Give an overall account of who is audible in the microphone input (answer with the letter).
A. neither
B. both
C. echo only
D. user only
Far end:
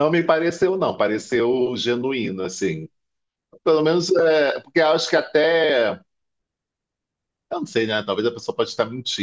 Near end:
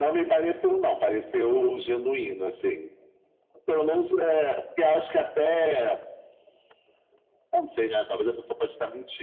C